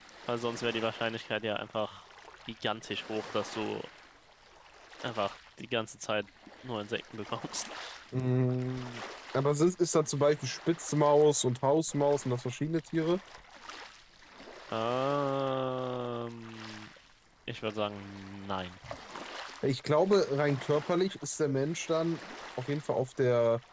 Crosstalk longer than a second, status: none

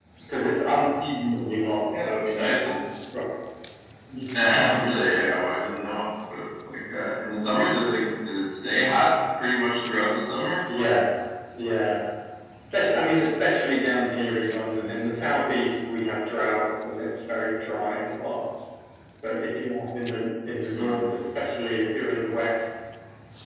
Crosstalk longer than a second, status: none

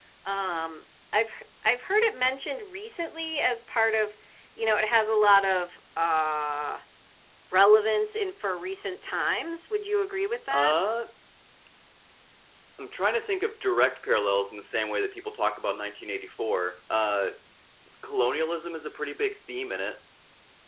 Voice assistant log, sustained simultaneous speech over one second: none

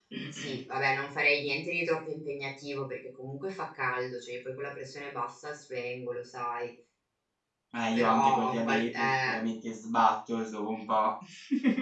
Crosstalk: present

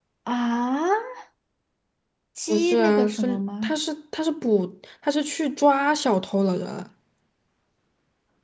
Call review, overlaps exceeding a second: present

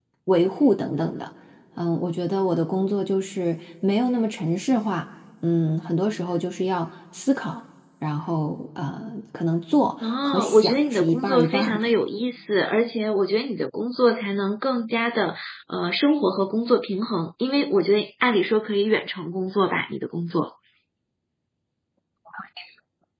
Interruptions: present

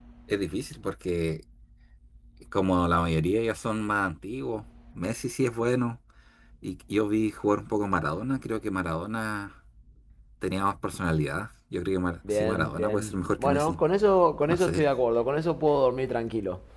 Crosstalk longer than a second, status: present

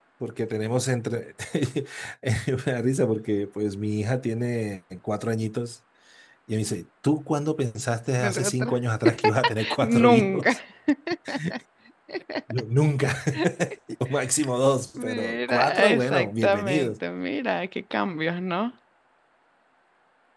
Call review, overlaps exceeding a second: present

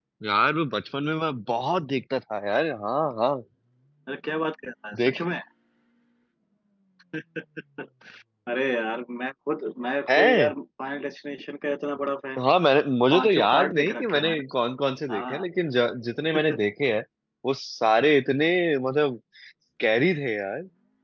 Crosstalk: present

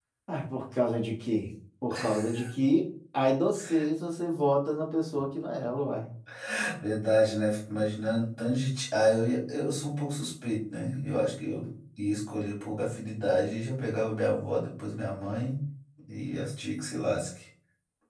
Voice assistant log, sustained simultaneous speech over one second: none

